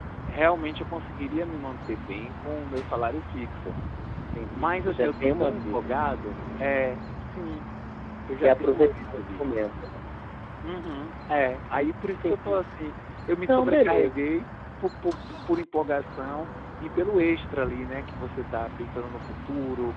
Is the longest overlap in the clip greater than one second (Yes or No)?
Yes